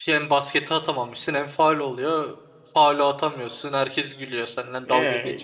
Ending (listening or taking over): taking over